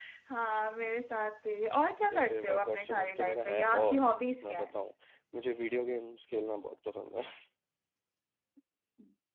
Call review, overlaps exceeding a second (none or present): present